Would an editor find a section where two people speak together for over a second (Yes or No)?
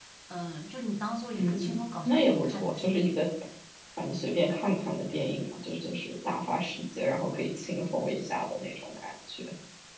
Yes